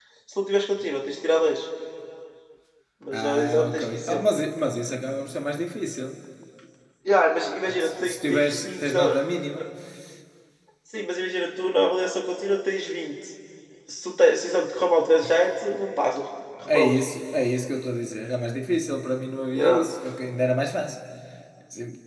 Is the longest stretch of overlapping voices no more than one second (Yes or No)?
No